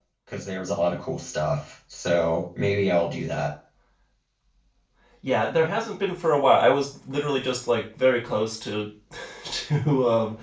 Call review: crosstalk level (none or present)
none